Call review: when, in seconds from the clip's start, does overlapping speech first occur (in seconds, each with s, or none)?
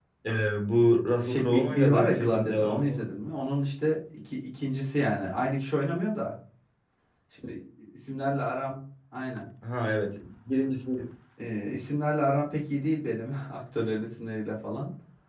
1.2 s